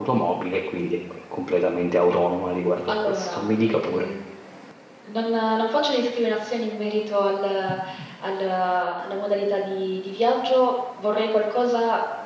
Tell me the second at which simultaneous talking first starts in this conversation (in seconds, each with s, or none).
2.9 s